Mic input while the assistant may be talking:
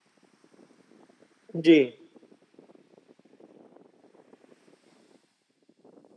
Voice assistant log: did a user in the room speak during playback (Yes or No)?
Yes